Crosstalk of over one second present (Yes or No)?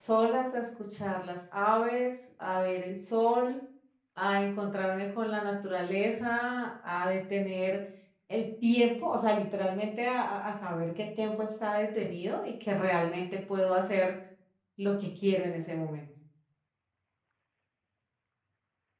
No